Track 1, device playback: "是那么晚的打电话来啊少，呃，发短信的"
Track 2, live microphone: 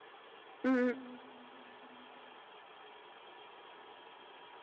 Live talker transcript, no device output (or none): 嗯，